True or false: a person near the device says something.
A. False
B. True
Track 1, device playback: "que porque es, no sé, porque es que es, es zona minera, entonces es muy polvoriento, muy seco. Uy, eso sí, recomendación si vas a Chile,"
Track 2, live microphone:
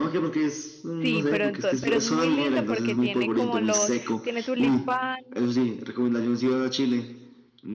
B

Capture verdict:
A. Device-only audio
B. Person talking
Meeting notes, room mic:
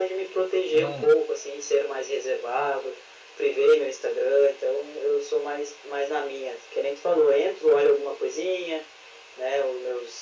B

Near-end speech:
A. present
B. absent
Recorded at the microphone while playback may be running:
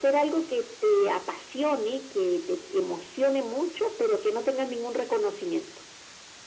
B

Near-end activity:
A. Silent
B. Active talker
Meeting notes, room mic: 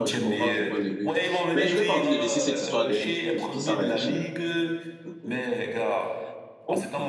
B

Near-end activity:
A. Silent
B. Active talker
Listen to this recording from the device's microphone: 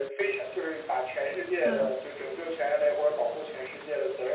B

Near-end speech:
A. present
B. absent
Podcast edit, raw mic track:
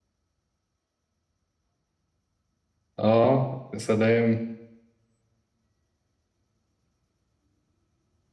A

